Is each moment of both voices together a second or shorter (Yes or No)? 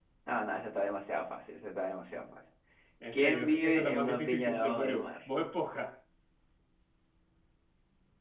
No